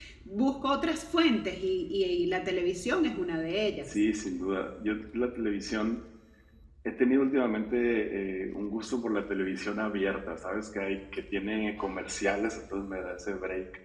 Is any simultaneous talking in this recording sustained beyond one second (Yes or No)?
No